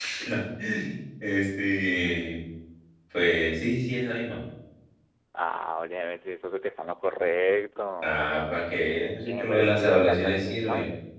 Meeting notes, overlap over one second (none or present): present